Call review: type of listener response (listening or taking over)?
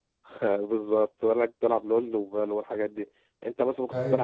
listening